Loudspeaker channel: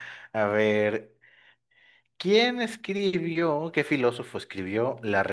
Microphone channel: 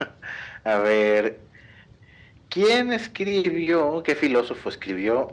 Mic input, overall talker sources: echo only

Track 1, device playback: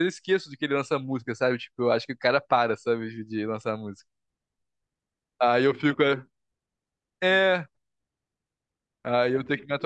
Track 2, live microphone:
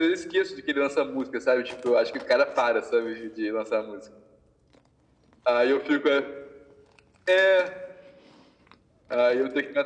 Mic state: echo only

